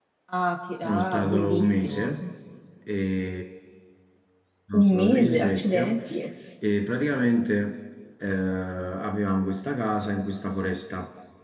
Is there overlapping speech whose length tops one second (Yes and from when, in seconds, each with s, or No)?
Yes, from 0.8 s